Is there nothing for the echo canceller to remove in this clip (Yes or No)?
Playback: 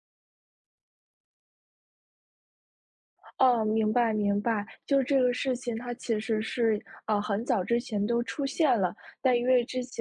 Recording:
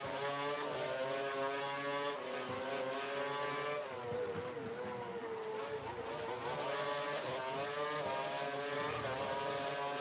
Yes